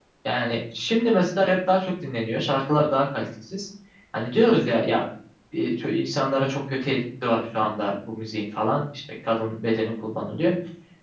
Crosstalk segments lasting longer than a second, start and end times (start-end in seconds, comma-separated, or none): none